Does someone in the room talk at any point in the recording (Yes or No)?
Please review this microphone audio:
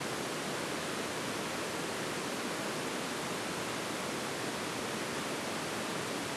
No